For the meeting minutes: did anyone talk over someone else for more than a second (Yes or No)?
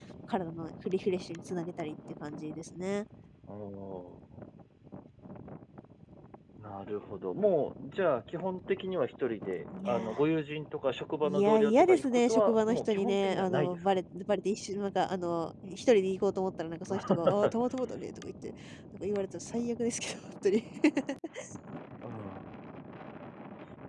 Yes